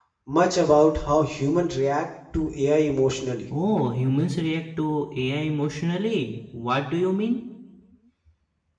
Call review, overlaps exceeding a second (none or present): none